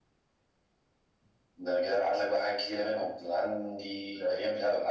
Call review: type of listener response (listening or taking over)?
listening